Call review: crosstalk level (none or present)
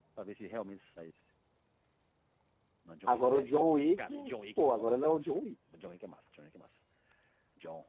present